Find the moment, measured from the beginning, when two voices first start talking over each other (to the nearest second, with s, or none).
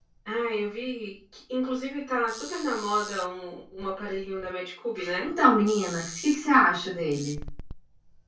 none